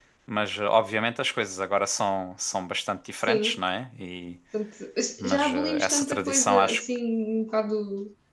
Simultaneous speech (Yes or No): Yes